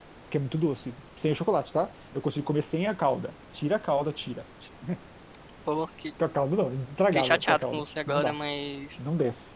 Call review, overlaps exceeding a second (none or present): present